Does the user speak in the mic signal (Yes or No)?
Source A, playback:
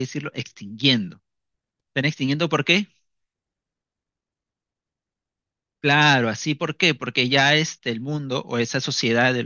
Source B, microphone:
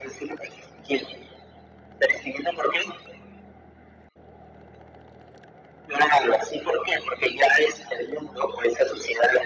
No